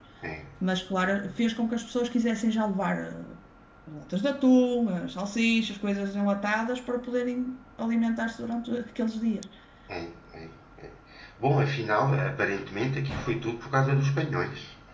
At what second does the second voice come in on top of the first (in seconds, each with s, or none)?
none